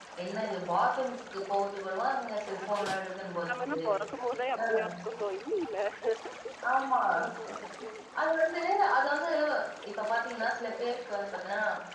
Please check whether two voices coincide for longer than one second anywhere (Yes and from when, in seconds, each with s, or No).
No